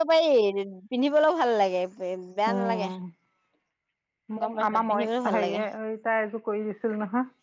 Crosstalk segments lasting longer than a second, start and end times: 4.4-5.6

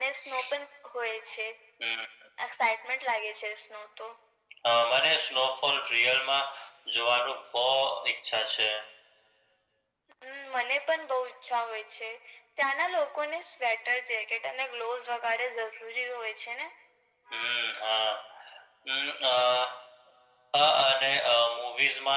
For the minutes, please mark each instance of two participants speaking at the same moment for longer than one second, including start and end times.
none

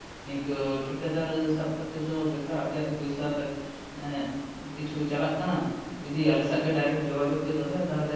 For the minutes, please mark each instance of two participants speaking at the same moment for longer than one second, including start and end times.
none

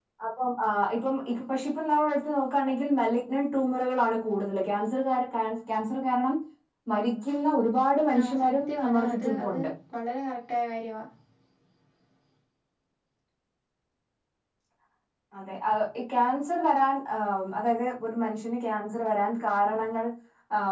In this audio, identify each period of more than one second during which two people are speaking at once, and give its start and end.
8.2-9.6

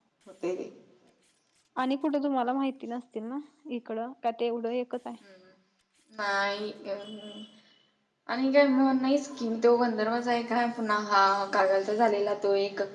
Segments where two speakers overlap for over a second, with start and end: none

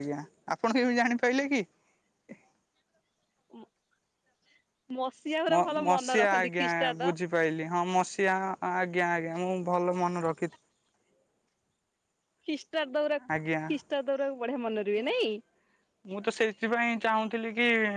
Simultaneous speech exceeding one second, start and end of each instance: 5.5-7.1

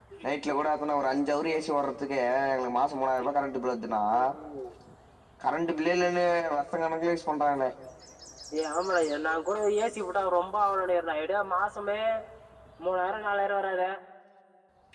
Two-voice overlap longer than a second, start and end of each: none

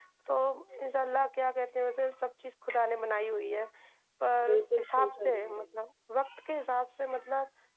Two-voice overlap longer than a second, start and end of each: 4.4-5.7

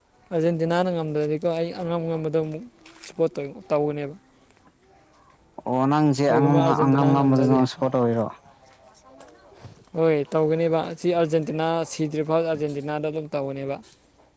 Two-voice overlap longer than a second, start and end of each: 6.3-7.6

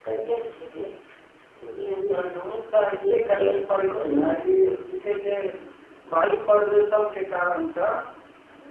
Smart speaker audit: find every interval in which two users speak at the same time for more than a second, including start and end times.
3.1-5.0

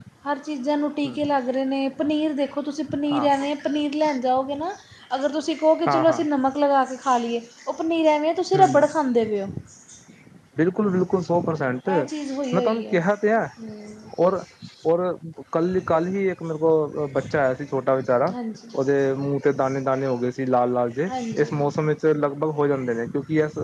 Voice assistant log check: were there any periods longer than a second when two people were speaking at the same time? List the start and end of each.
none

